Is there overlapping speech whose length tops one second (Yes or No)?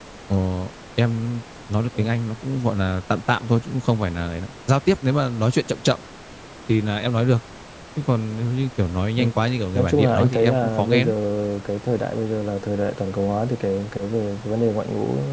Yes